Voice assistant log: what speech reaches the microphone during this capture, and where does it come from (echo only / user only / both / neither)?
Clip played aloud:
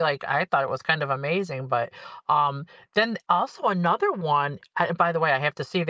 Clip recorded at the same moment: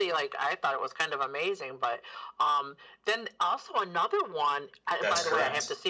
both